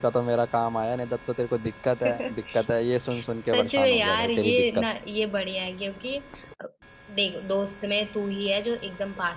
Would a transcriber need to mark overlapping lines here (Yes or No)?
Yes